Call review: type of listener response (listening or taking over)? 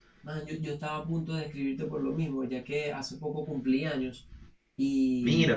listening